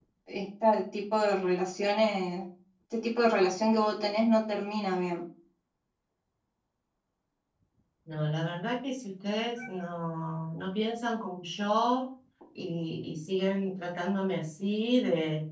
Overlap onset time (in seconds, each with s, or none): none